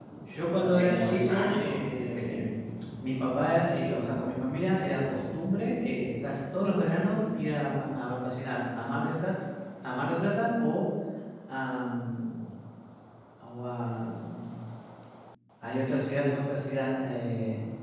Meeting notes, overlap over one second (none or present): present